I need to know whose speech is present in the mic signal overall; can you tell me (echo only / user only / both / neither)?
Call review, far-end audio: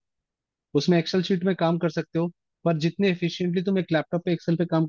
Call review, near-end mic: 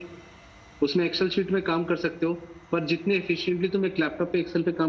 echo only